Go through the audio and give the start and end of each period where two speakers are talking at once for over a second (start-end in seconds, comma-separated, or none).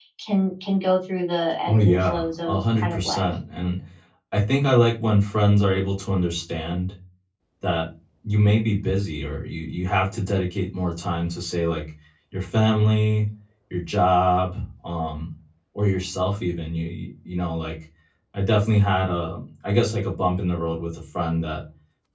1.7-3.3